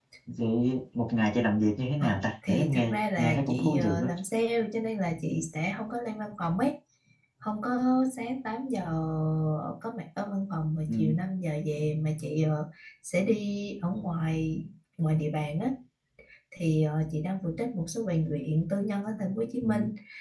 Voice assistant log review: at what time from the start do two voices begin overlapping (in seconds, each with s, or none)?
2.0 s